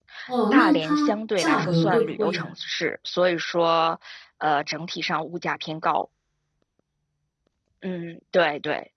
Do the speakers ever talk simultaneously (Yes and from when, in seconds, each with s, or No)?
Yes, from 0.5 s